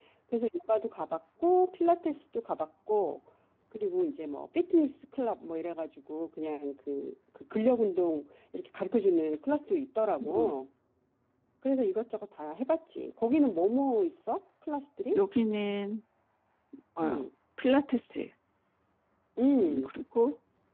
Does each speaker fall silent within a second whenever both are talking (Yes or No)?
Yes